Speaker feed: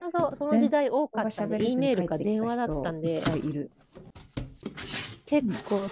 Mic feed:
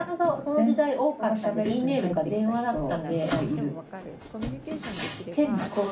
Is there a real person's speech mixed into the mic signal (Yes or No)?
Yes